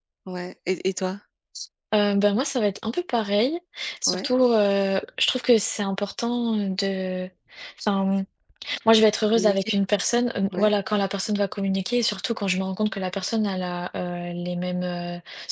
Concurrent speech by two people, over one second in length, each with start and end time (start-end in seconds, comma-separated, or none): none